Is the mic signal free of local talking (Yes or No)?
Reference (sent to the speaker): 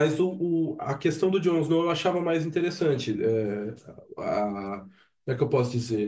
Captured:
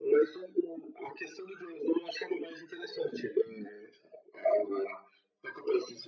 Yes